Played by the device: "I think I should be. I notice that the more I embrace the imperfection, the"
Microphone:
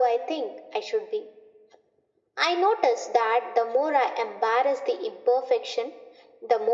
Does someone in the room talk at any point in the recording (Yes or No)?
No